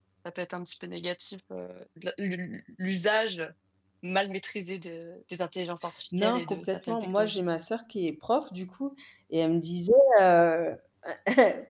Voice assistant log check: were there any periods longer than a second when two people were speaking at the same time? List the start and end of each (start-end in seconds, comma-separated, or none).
6.1-7.4